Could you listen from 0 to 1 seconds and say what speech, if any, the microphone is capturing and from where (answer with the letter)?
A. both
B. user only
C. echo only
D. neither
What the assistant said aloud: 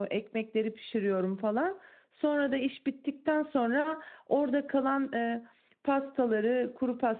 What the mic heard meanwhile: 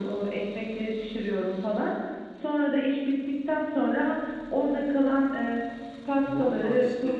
C